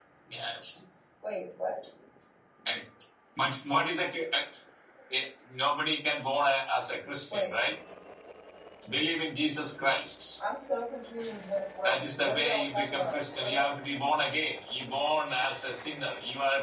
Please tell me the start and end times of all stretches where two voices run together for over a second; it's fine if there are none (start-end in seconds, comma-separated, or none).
11.8-13.7